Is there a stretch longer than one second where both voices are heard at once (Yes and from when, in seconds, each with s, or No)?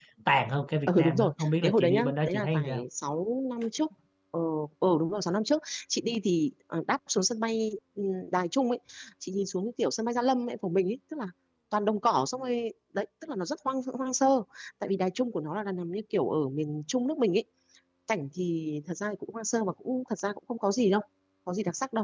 Yes, from 0.9 s